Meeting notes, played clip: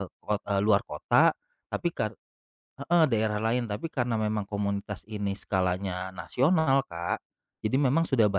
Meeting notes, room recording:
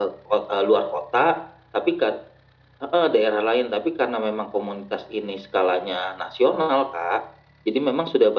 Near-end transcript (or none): none